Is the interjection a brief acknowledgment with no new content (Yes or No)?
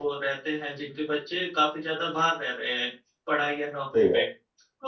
Yes